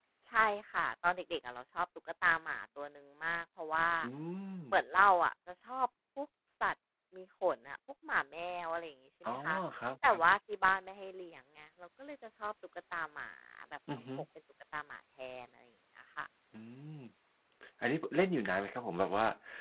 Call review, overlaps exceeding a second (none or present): none